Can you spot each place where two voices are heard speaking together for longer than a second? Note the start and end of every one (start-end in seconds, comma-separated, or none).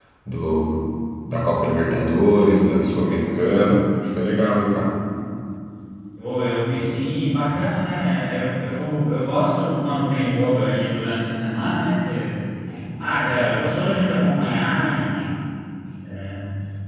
none